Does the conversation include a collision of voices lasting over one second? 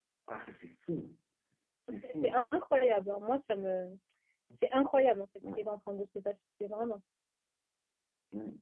No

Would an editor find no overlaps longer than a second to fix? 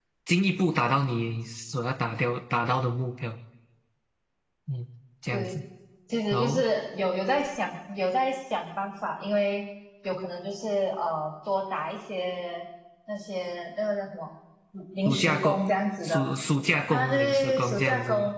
No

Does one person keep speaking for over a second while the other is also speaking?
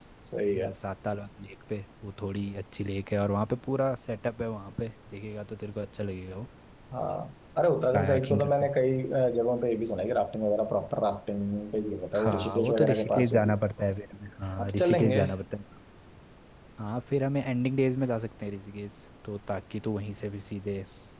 Yes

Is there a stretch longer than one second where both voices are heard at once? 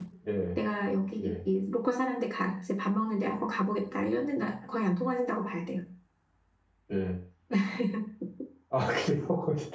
No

